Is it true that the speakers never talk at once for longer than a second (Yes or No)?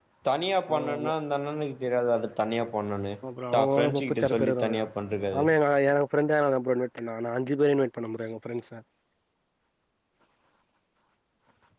No